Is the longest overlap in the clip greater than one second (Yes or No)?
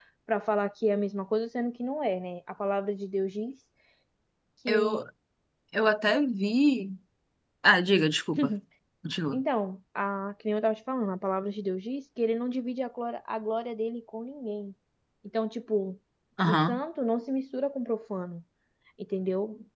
No